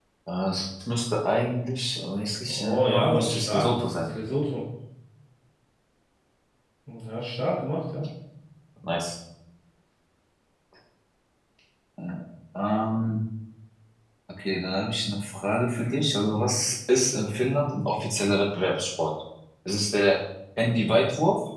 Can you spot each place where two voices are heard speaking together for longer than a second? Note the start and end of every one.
2.5-4.1

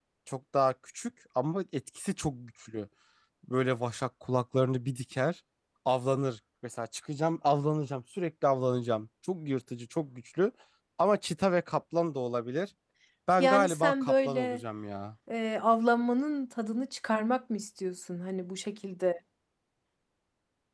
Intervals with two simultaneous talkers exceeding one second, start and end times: 13.4-14.6

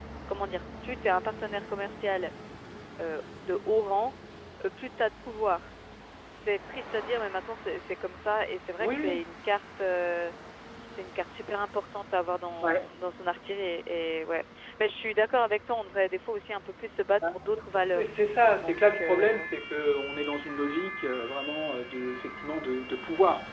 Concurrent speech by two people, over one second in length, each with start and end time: 17.5-19.5

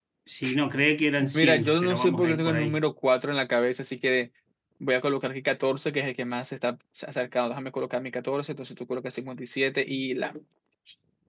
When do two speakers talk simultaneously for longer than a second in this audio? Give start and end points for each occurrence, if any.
1.3-2.8

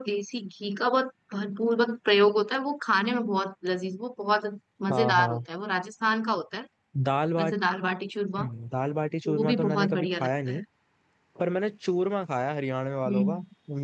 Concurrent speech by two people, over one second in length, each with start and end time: 9.2-10.6

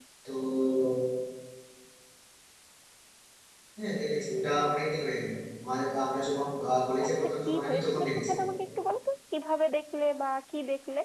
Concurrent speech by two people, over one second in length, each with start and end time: 7.0-8.4

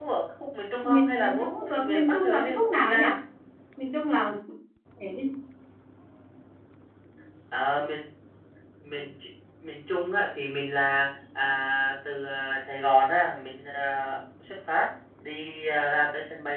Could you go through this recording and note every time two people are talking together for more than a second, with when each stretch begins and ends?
0.8-3.0

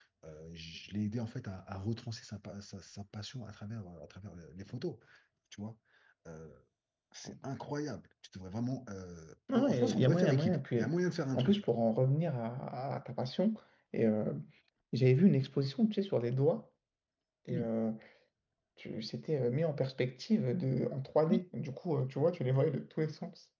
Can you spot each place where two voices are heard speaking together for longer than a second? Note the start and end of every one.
9.5-10.9

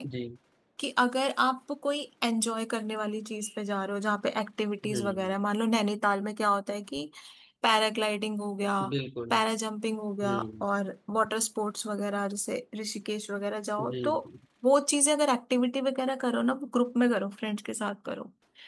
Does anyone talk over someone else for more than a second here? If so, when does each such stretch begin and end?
none

